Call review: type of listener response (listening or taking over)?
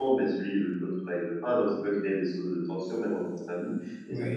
listening